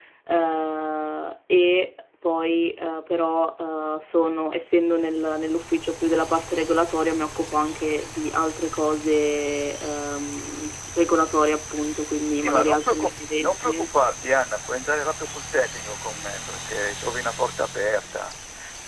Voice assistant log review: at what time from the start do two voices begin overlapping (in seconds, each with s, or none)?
12.2 s